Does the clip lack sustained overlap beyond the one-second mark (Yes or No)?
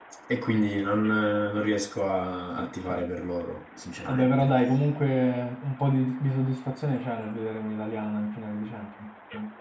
Yes